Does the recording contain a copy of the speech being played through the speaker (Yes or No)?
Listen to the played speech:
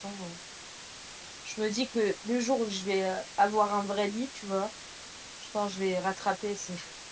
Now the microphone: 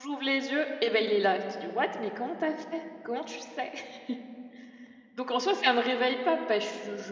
No